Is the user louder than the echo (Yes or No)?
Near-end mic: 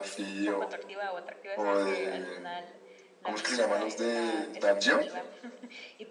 No